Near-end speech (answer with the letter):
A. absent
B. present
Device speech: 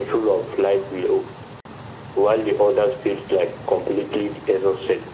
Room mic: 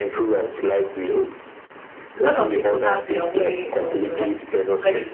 B